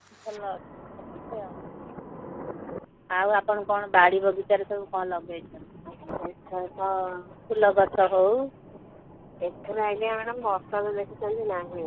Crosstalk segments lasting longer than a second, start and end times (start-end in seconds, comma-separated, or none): none